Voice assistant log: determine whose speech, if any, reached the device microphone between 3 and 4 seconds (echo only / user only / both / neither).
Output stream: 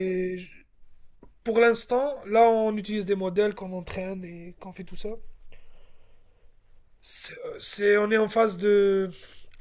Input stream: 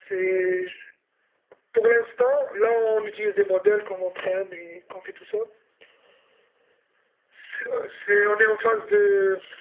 echo only